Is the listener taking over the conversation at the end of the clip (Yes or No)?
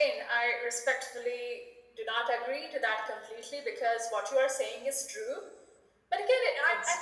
Yes